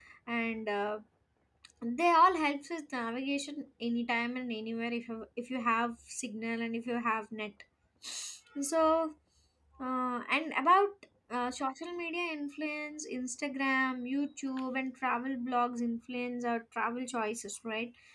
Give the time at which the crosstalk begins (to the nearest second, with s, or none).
none